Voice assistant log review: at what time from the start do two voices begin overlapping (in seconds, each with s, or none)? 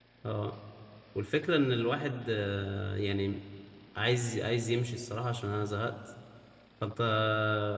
none